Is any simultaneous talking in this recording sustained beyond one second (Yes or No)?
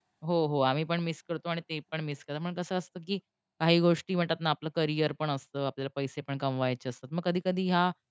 No